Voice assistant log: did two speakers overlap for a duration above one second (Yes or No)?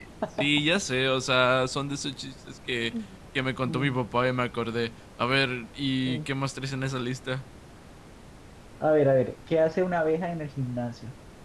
No